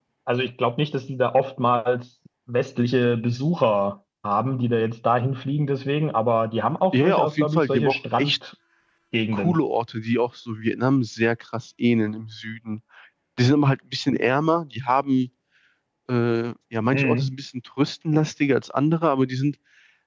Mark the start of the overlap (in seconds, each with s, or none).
6.9 s